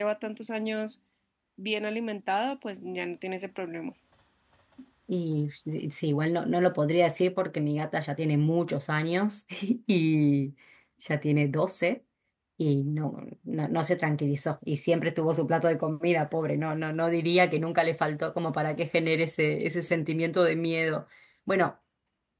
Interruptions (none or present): none